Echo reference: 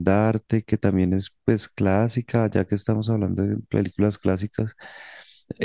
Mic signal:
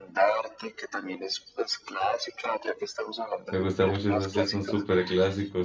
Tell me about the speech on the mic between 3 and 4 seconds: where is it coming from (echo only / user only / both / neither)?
both